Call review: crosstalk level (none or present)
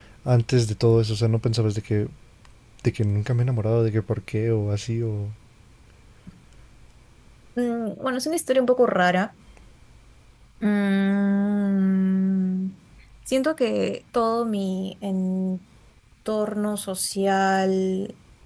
none